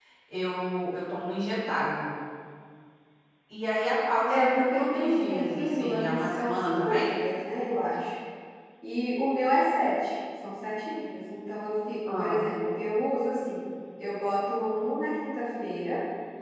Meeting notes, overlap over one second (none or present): present